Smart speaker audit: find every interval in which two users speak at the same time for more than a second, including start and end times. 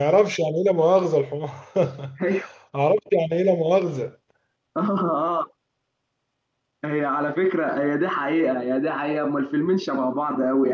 none

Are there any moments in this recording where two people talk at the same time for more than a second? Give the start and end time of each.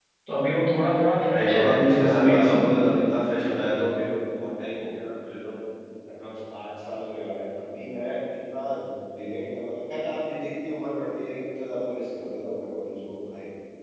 1.3-2.6

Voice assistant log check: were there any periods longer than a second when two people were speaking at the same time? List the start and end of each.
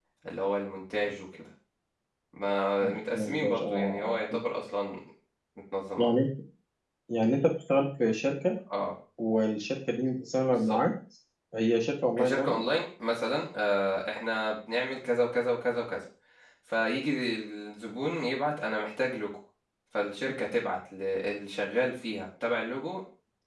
2.8-4.2

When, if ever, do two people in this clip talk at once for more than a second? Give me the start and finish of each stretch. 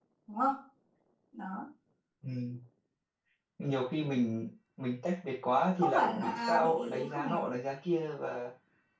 5.8-7.5

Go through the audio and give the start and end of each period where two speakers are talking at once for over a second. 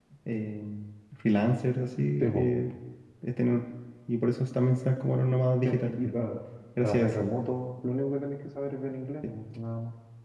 none

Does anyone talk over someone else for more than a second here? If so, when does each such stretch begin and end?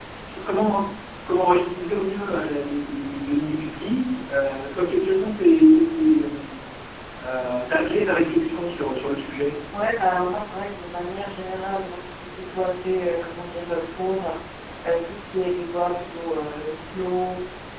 none

